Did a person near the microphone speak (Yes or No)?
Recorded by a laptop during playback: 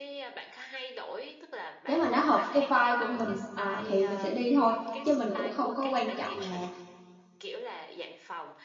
Yes